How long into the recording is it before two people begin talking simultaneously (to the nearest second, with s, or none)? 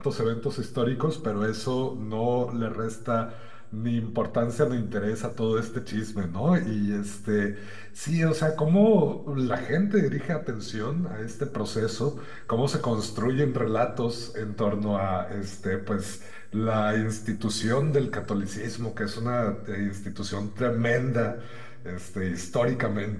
none